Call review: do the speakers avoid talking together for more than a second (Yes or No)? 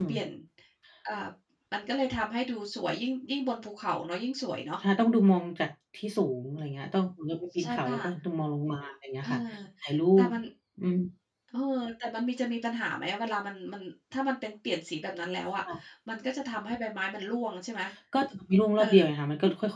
Yes